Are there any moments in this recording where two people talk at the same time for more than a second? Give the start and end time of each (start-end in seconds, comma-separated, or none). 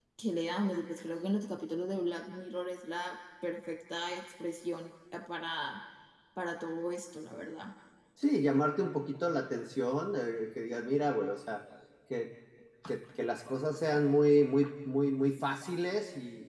none